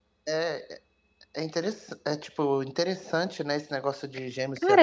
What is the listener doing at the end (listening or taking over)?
taking over